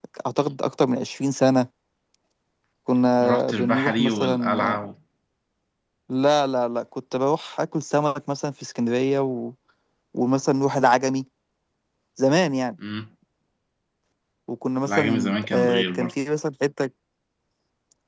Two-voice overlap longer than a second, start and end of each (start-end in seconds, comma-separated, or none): 3.2-4.8, 14.9-16.1